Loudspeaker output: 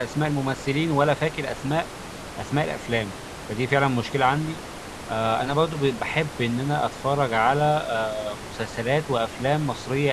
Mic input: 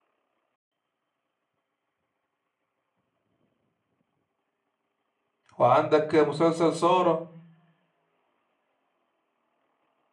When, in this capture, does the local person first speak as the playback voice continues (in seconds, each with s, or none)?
5.6 s